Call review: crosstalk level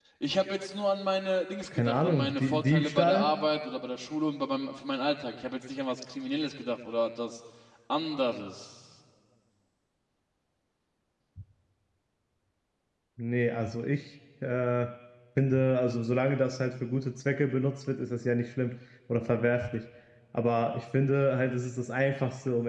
present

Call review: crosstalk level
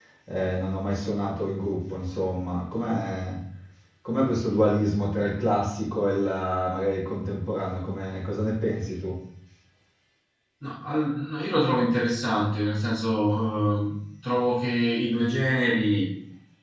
none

